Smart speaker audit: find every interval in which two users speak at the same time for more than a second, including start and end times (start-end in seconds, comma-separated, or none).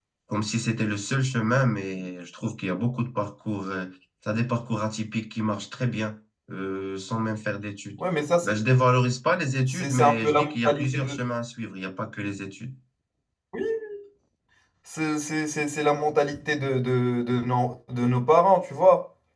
9.7-11.2